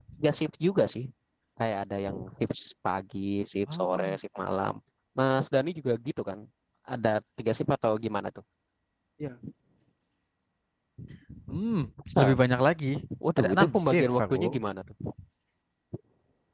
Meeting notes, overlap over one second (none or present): present